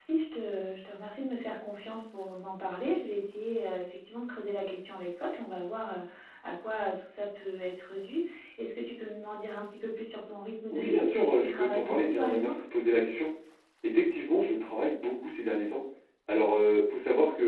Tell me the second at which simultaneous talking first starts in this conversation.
10.7 s

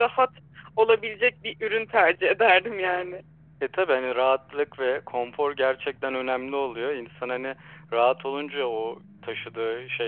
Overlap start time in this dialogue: none

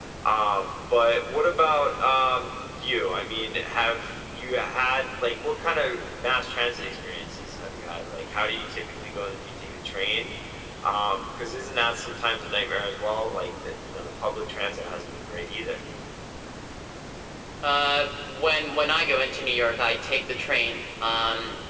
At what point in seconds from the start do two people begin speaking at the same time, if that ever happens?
none

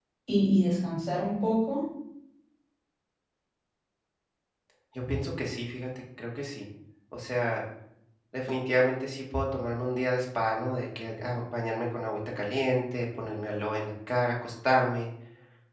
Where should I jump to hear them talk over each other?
none

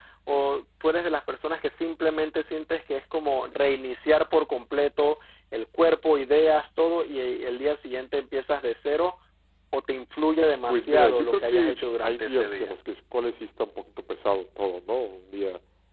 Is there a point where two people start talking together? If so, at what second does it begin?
10.7 s

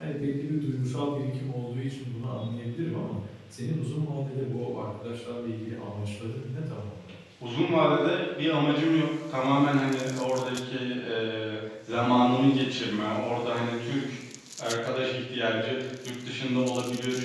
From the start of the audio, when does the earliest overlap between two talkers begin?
none

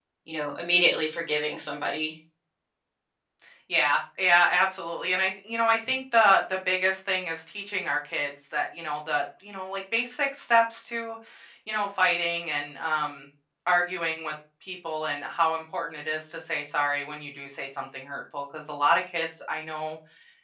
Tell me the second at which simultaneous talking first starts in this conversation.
none

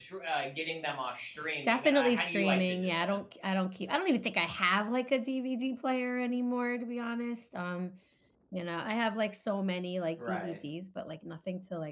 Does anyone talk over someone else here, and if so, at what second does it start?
1.6 s

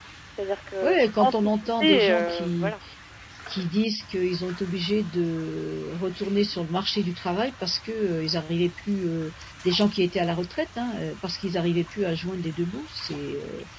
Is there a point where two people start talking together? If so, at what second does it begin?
0.8 s

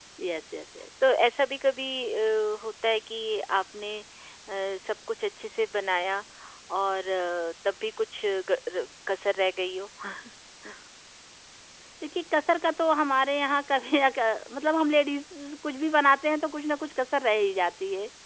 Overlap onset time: none

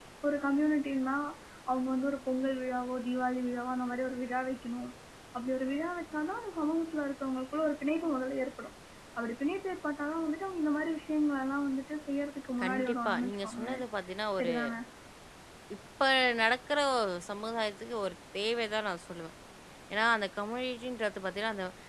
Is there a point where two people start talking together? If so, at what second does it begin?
12.6 s

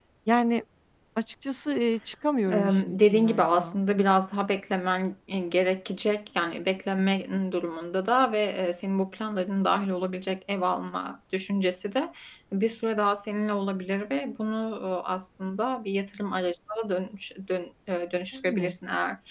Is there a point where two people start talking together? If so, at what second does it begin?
2.5 s

